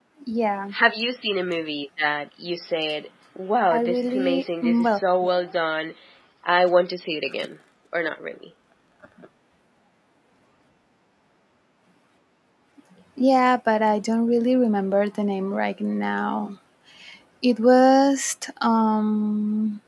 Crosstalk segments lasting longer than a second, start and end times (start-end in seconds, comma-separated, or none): 3.7-5.0